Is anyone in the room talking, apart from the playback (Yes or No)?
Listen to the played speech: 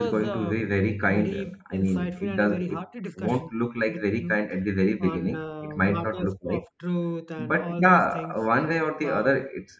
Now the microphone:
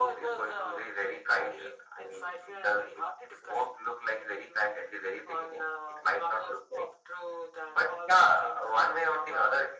No